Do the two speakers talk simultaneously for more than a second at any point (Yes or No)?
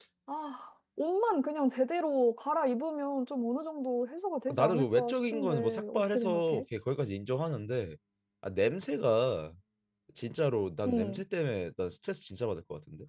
Yes